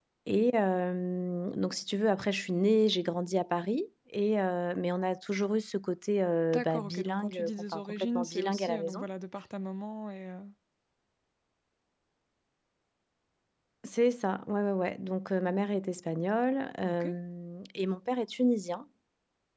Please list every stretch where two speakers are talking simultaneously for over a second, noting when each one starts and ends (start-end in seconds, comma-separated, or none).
6.5-9.0